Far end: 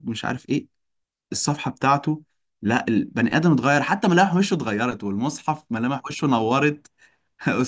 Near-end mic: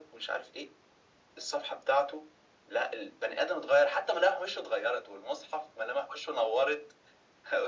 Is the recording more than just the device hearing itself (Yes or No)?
No